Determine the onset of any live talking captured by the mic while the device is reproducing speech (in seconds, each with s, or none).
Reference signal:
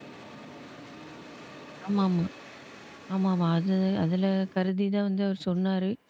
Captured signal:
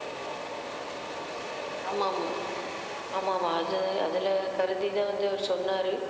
none